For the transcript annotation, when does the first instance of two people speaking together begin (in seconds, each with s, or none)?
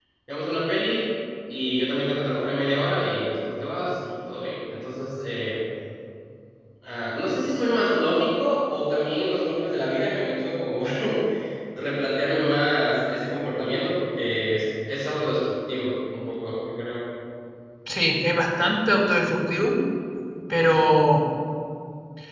none